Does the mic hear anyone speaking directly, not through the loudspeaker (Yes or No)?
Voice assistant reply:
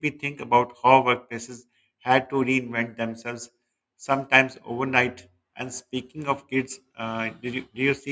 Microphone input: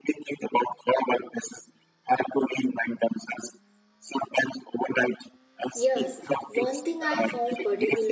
Yes